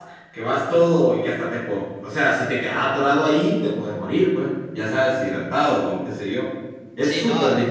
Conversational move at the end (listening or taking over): taking over